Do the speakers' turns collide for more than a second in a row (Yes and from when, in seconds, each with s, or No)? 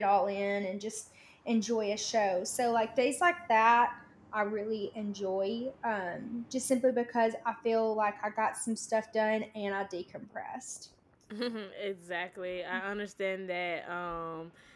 No